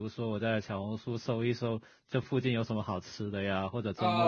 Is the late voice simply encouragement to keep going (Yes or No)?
No